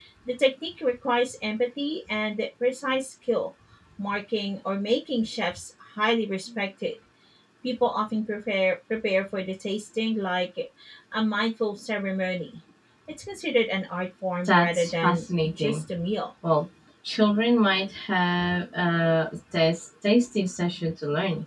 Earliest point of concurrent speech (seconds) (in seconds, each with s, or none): 14.4 s